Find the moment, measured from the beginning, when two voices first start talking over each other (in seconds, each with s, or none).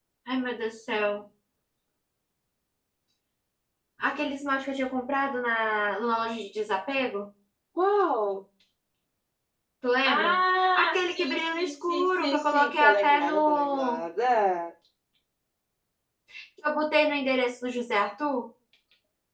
10.0 s